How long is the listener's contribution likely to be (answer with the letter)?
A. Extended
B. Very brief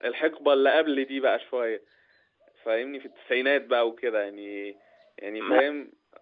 B